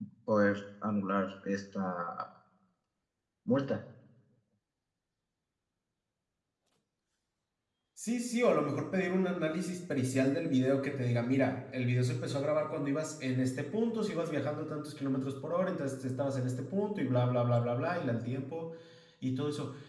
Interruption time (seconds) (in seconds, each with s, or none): none